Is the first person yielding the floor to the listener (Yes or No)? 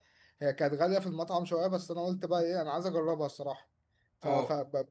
No